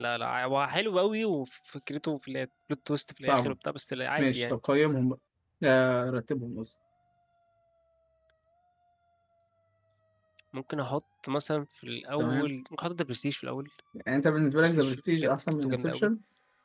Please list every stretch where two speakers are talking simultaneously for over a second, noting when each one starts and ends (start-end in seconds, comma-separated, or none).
14.6-16.1